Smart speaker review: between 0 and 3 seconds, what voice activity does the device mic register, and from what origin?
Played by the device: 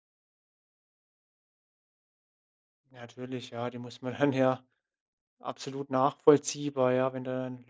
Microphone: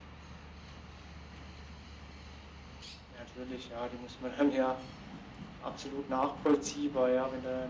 neither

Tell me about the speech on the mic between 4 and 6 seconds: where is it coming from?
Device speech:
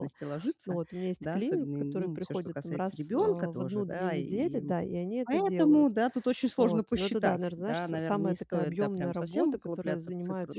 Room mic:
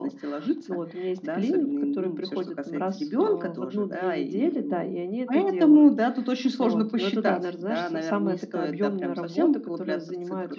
echo only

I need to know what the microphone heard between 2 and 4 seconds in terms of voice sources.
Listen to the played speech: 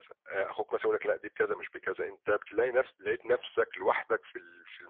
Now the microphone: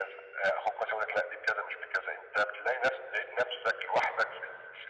echo only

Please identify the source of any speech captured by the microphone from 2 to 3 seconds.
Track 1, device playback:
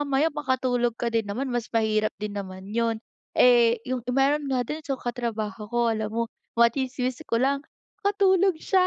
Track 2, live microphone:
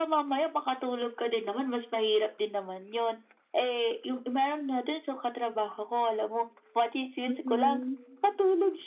echo only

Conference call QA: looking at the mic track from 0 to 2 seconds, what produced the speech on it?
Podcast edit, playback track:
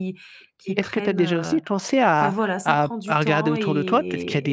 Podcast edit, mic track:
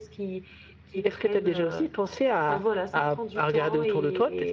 echo only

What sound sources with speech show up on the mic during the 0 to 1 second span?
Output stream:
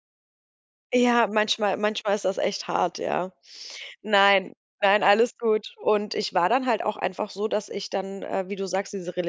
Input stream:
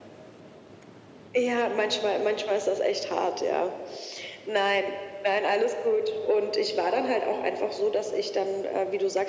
neither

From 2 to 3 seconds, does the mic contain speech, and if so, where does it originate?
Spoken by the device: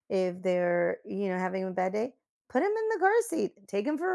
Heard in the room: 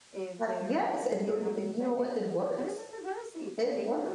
both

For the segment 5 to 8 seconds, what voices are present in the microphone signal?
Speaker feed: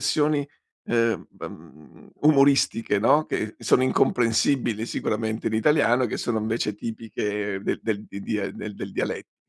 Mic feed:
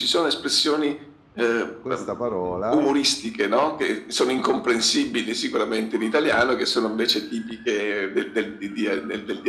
echo only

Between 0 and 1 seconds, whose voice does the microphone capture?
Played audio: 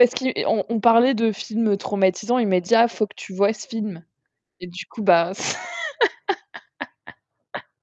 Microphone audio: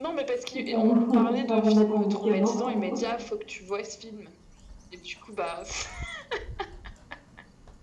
both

